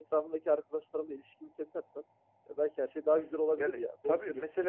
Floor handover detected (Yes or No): Yes